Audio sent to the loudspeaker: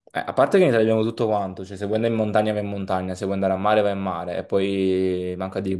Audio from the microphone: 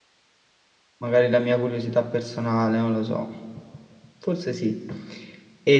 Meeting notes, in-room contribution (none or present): present